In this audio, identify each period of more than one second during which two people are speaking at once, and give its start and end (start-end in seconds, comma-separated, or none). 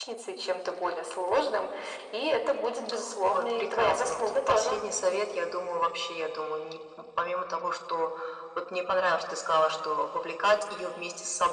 3.2-4.8